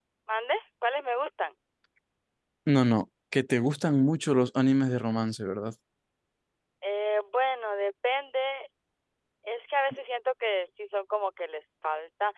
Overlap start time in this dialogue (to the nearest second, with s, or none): none